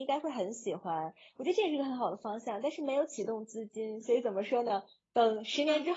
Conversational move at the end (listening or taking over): listening